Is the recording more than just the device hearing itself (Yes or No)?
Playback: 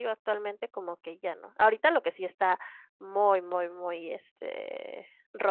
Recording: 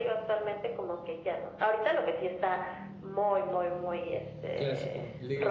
Yes